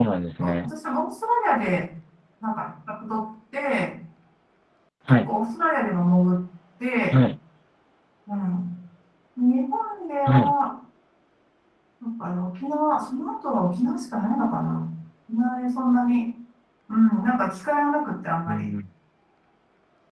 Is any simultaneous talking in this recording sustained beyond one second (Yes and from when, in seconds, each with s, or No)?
No